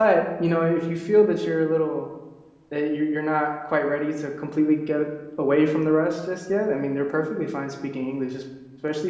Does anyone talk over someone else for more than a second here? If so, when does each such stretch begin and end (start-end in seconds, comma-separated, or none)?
none